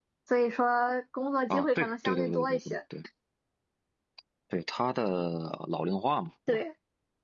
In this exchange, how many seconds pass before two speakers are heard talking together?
1.5 s

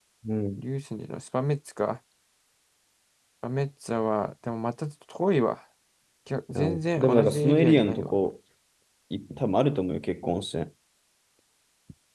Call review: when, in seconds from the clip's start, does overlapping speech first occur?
6.5 s

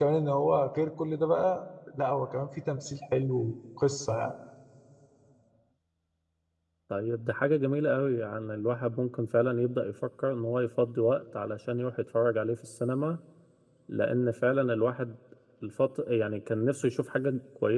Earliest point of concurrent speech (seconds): none

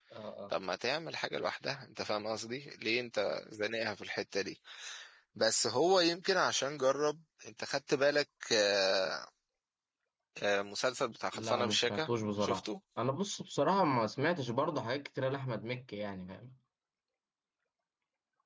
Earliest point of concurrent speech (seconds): 11.3 s

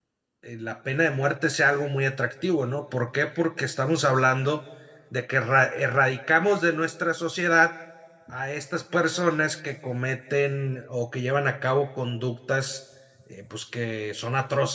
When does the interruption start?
none

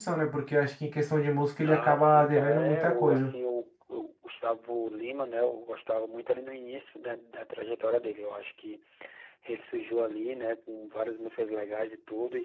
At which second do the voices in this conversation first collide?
1.6 s

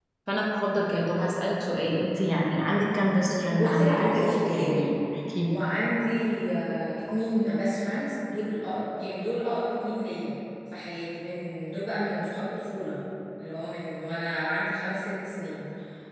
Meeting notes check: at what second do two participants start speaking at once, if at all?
3.5 s

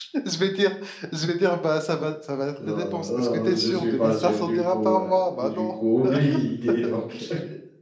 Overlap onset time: 2.7 s

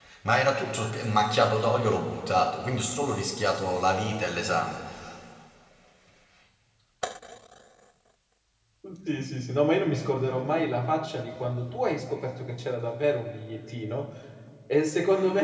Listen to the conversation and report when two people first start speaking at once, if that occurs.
none

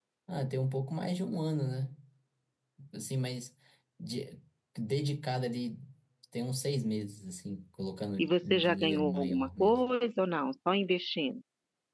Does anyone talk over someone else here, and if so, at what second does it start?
8.2 s

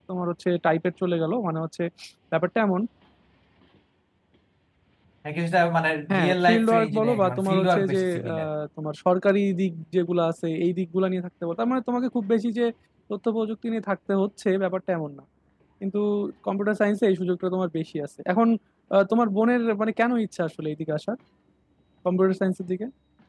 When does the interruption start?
6.1 s

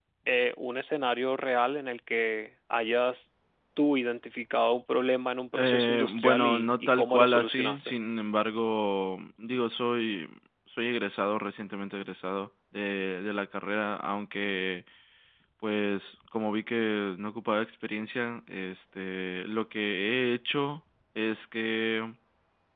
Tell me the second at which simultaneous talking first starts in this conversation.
5.5 s

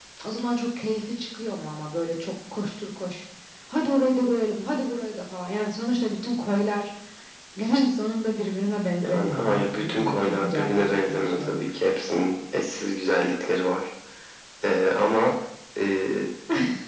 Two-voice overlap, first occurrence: 9.0 s

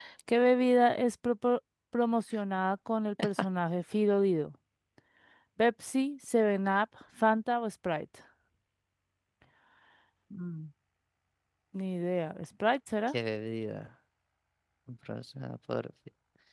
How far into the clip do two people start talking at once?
none

